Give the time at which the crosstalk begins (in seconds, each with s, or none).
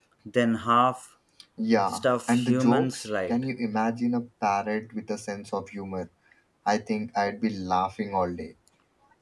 1.9 s